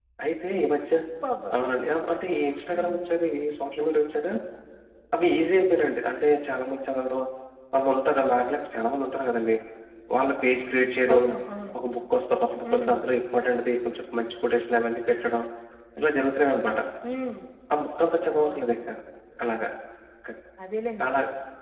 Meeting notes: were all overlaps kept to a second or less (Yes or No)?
Yes